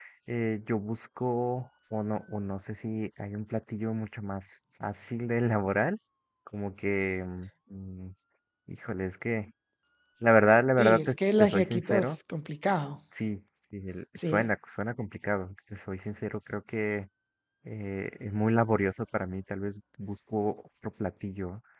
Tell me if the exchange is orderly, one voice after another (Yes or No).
No